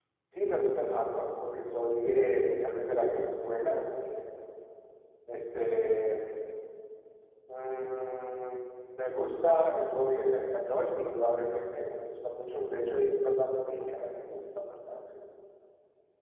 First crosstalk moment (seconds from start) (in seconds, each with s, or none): none